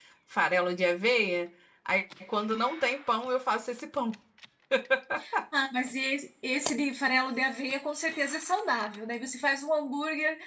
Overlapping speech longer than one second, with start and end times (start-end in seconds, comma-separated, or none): none